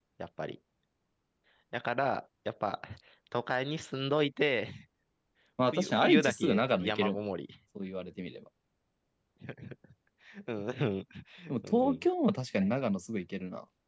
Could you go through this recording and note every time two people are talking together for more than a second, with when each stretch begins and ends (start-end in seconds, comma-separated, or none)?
5.7-7.3